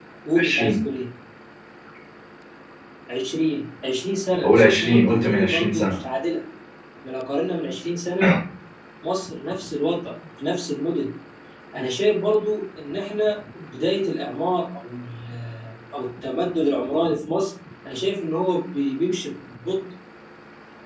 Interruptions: present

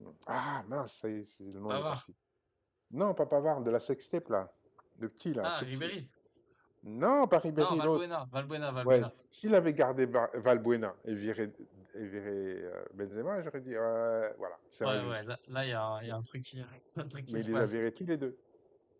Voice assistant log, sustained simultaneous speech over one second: none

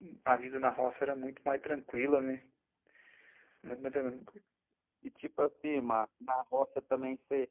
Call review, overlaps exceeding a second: none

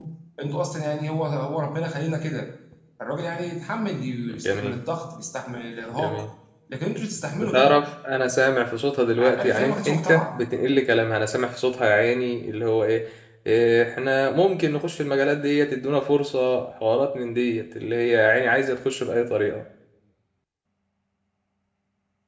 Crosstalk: present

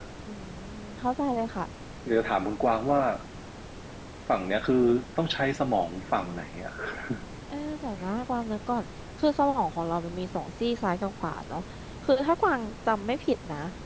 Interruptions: none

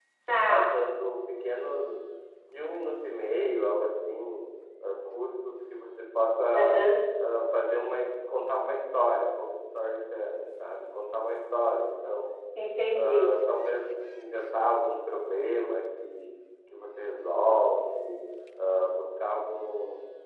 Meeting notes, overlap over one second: none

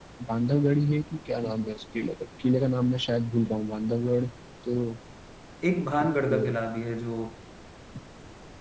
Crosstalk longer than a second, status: none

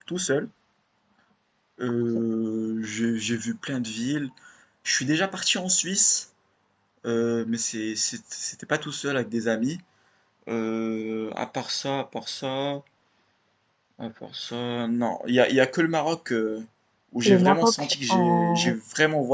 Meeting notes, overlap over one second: present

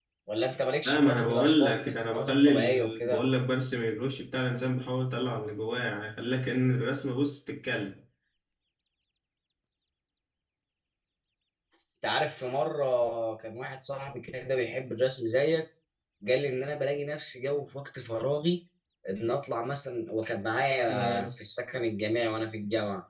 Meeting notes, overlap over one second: present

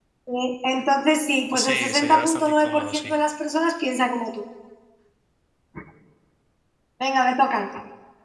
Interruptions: present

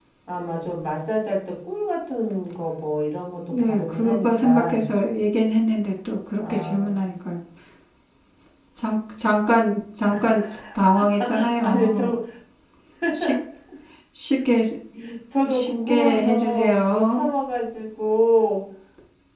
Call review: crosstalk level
present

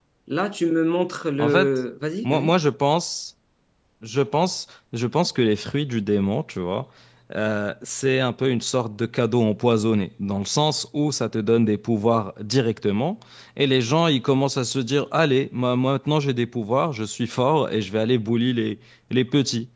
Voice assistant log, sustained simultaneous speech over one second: none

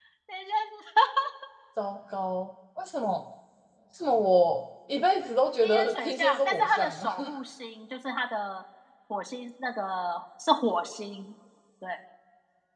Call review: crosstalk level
present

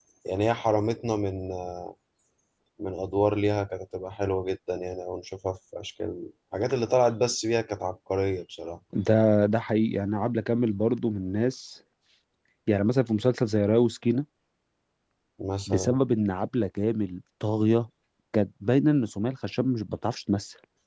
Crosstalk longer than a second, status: none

